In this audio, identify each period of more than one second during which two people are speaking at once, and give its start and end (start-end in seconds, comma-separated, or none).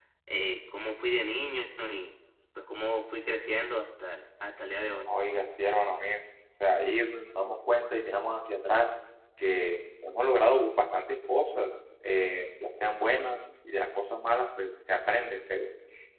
none